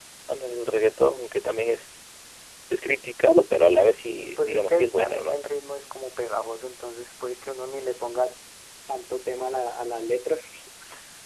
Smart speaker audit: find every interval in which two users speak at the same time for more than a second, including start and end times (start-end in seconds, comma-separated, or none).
3.8-5.4